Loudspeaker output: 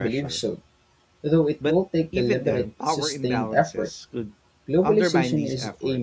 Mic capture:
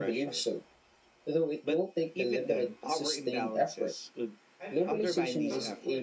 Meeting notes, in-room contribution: present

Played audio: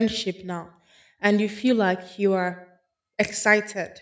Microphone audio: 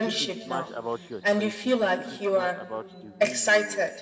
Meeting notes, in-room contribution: present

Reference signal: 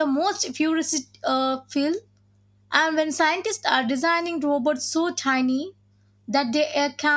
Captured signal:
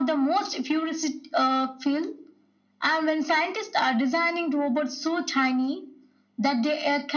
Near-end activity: none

